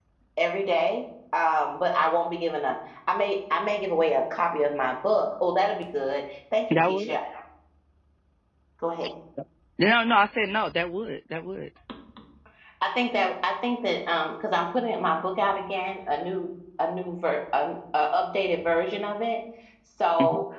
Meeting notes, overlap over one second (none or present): none